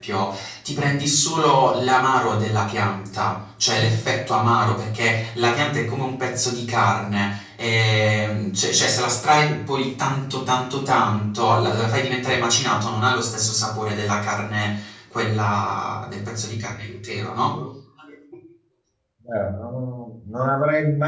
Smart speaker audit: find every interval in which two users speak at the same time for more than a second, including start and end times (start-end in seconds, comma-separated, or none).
none